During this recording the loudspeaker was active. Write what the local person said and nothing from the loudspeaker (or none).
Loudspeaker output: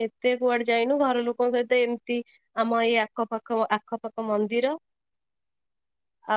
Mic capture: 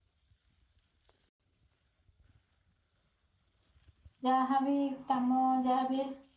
ଯାହାବି କାମ ଯାହାବି